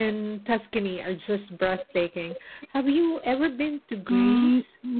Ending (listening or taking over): taking over